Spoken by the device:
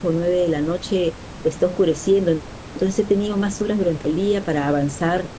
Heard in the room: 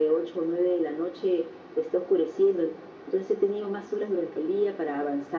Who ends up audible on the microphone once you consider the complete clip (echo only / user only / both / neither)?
echo only